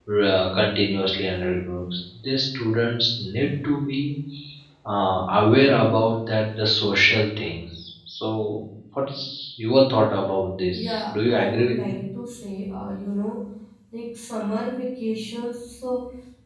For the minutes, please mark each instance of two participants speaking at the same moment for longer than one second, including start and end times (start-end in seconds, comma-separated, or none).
10.7-12.0